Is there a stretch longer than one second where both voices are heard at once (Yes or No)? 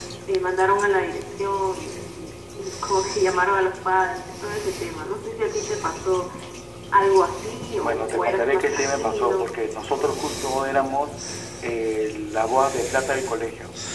Yes